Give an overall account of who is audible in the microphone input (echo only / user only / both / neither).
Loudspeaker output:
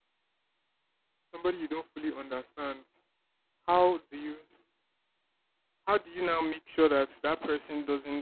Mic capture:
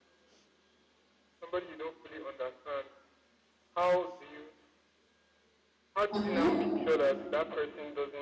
both